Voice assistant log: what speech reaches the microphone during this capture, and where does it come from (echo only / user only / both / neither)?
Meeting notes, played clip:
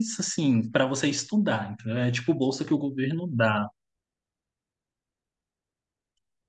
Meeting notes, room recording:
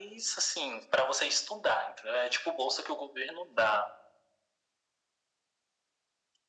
echo only